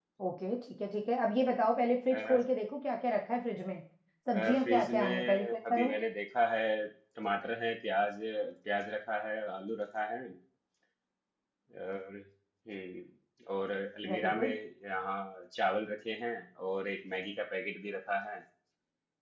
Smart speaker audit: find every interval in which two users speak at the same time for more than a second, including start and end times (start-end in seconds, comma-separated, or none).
4.3-5.9